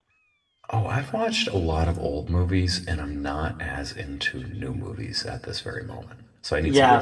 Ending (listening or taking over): taking over